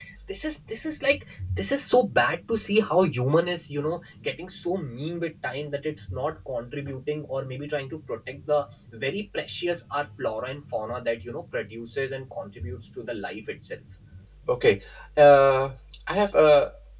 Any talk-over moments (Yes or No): No